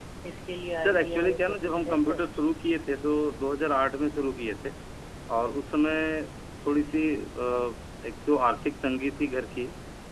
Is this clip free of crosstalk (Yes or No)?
No